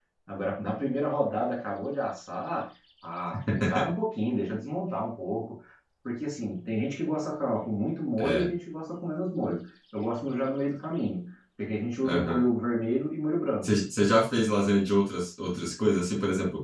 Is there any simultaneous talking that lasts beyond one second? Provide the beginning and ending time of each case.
none

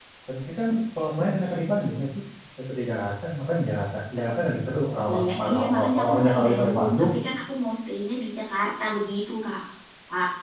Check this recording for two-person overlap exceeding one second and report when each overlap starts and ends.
5.1-7.0

